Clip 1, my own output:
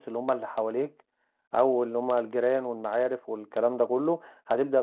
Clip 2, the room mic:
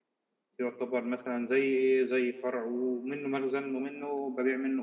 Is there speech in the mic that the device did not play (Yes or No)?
Yes